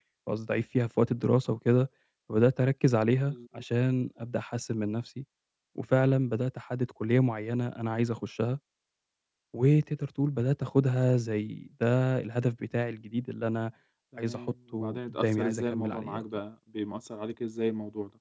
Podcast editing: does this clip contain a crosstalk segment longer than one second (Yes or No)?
Yes